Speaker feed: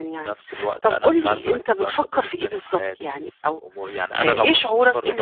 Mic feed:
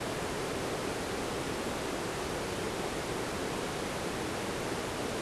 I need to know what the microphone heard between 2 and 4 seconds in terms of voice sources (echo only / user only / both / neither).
neither